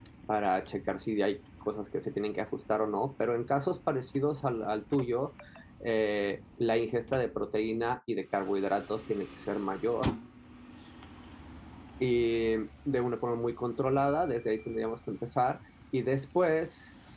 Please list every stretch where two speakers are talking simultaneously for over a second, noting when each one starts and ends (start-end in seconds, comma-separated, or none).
none